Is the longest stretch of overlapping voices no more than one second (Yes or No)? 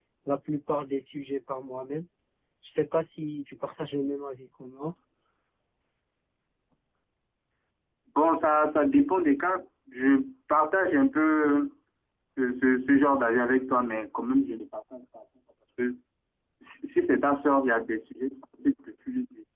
Yes